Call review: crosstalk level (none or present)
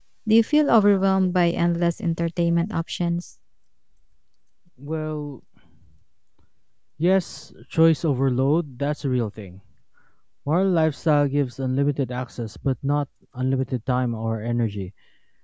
none